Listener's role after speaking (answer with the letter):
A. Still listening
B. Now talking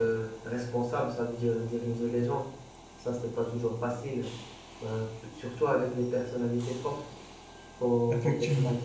A